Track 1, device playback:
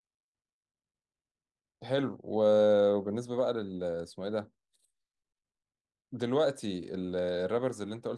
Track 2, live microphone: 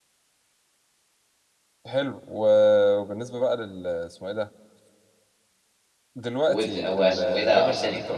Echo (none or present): present